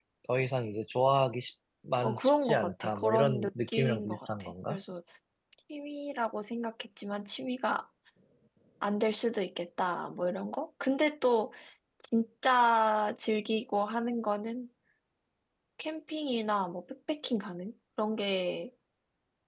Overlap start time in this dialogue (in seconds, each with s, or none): 2.0 s